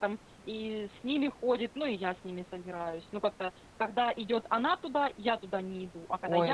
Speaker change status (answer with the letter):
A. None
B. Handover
B